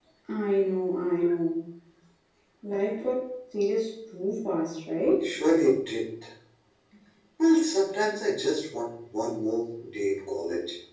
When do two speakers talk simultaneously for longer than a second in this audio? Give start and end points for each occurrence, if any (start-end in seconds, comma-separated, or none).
none